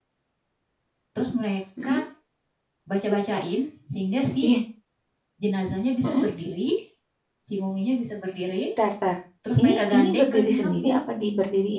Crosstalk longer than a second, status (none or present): present